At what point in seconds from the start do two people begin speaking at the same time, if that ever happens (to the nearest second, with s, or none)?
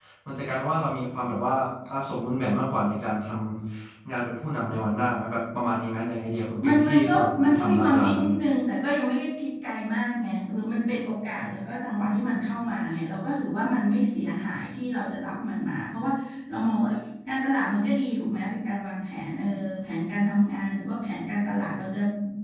7 s